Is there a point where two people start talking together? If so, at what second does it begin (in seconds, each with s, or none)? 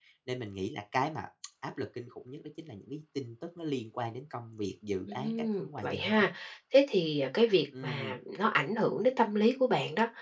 5.0 s